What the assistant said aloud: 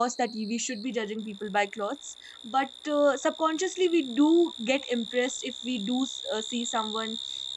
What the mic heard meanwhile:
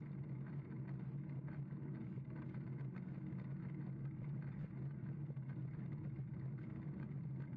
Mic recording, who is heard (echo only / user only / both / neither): neither